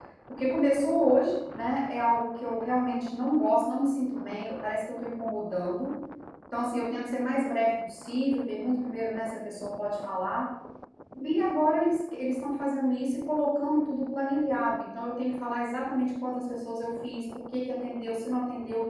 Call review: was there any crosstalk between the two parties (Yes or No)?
No